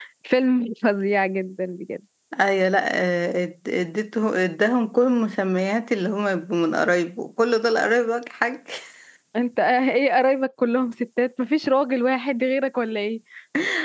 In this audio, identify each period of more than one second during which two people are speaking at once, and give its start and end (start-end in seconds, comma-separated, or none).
none